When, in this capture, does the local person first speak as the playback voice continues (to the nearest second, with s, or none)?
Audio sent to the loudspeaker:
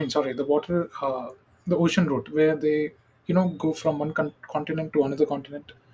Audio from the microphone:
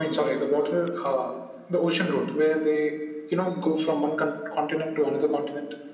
none